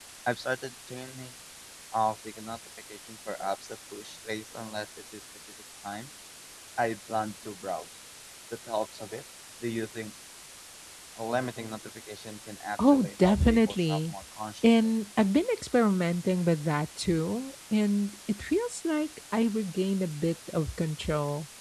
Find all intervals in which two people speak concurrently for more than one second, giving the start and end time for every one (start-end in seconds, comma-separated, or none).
12.9-14.1